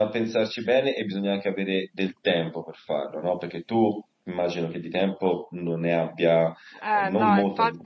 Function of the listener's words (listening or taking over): taking over